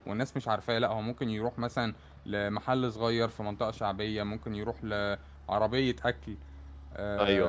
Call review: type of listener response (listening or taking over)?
listening